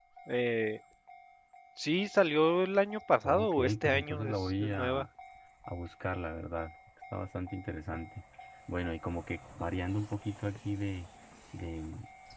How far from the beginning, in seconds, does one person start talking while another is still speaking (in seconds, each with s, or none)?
3.2 s